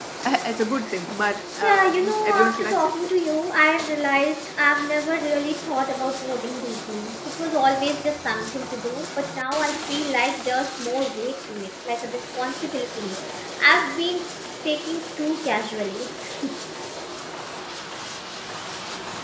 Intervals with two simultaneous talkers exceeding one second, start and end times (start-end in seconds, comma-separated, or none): 1.6-3.0